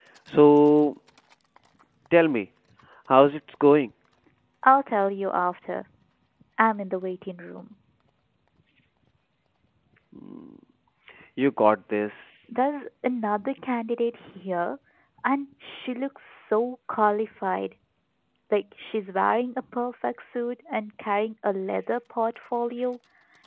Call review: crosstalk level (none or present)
none